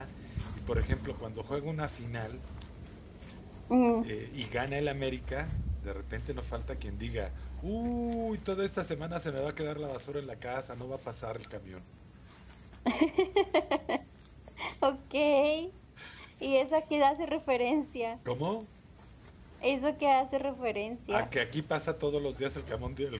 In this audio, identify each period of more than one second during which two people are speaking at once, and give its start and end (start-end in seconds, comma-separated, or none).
none